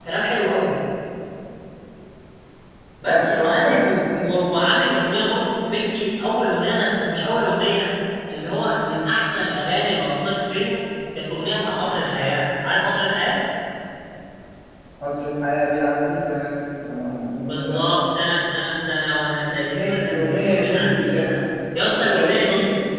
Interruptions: present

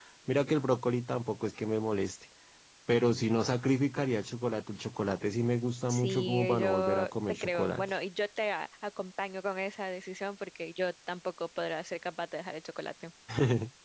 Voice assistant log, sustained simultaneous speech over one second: present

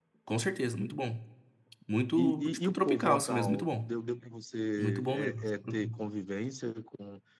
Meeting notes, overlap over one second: present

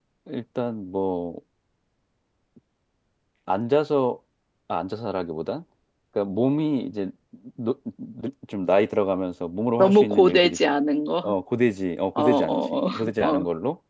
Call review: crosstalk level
present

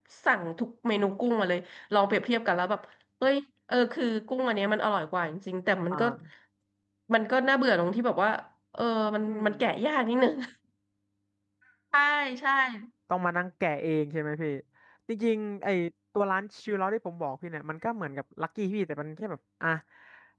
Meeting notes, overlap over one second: none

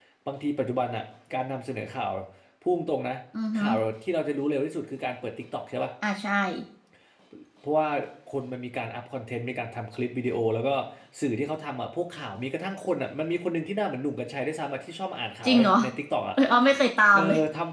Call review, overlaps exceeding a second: none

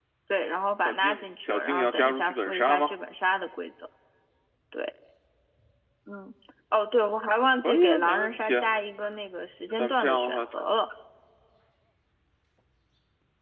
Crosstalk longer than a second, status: present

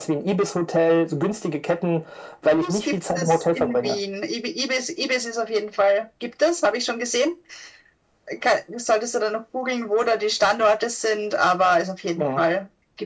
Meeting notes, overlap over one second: present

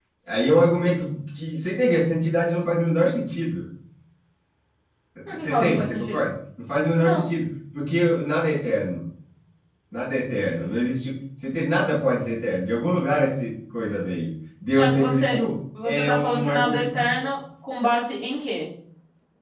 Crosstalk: present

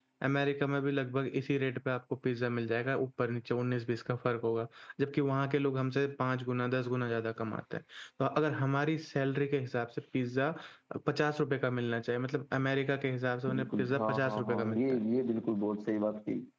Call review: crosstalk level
present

